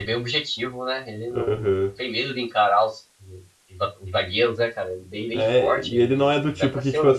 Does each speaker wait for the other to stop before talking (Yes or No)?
No